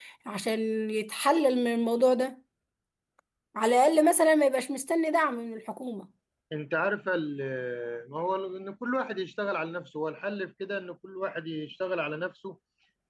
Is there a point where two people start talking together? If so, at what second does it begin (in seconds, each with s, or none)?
none